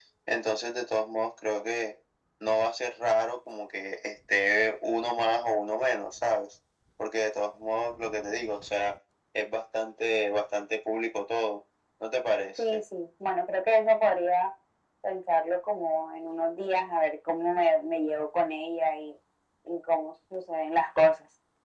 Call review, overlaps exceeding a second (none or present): none